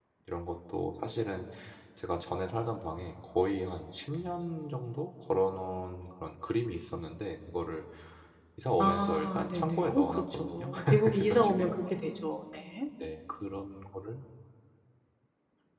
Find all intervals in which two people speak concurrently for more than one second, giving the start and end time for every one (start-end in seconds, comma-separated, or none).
8.8-11.7